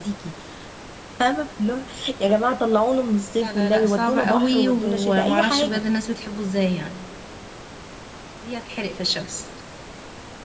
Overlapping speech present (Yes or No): Yes